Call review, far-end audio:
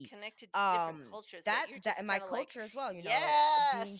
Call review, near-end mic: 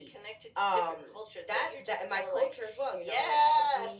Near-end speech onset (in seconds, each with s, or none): none